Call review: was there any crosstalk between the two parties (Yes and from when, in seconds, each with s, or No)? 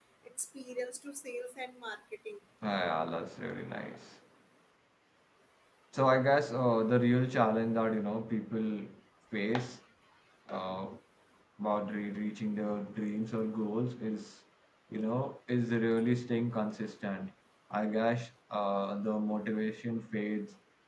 No